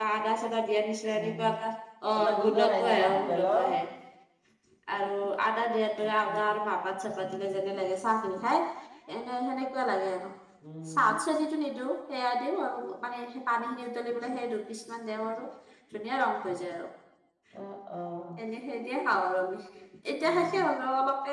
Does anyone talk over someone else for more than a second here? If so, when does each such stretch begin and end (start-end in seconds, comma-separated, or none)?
2.2-3.7